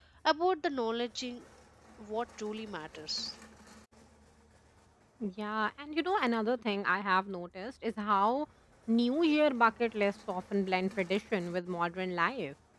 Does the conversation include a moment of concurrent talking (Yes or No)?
No